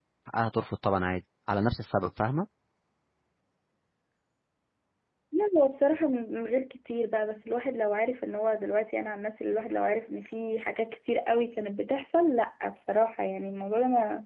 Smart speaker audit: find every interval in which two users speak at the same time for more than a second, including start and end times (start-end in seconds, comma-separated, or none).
none